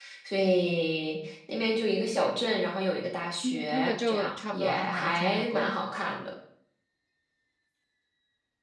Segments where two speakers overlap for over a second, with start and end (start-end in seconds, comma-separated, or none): 3.4-5.7